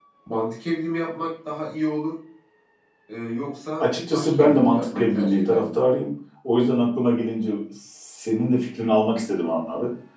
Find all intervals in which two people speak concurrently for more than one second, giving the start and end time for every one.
3.8-5.8

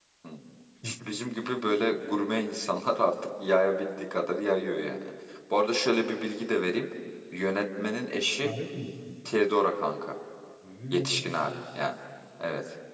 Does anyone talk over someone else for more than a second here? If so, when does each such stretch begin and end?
none

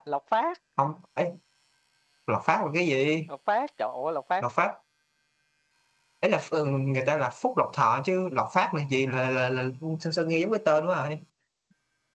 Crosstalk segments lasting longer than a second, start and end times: none

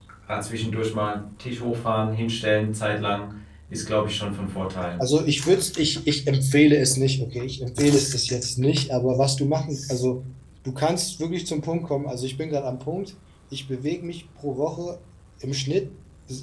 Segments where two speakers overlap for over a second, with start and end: none

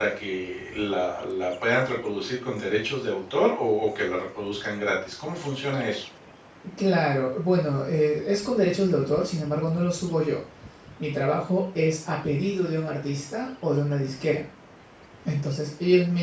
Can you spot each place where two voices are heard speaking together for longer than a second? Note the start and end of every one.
none

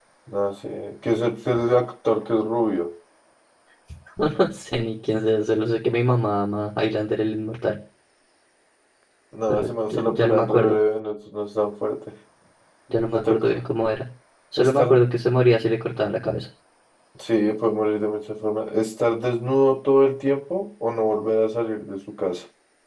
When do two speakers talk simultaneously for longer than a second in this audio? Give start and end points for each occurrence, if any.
9.5-10.8

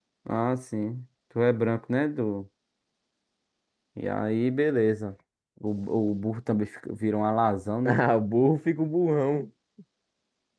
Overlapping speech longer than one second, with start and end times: none

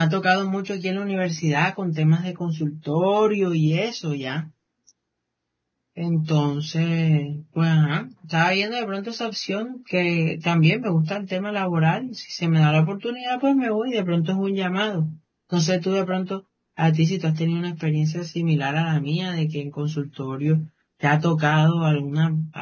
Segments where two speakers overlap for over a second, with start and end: none

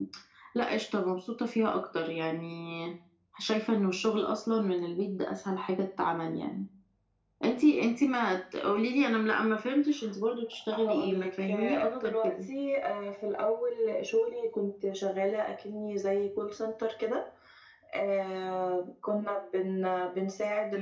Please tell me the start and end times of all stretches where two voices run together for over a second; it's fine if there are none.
10.7-12.3

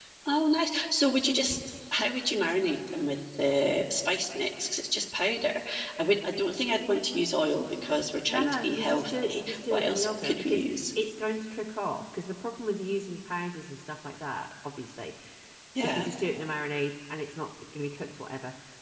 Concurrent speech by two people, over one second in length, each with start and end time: 8.3-10.8

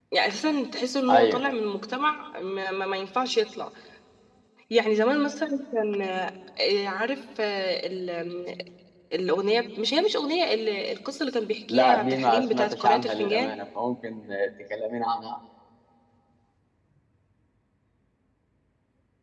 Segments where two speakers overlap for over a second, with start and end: 11.7-13.5

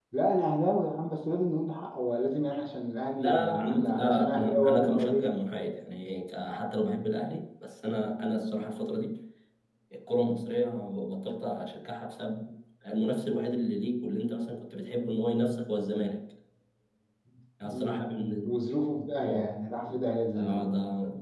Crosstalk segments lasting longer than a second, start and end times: 3.2-5.3

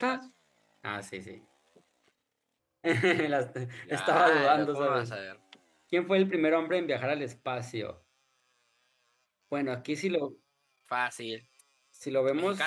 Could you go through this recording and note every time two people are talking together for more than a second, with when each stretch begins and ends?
3.9-5.2

